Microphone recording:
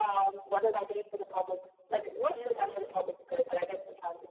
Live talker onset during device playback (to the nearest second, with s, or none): 2 s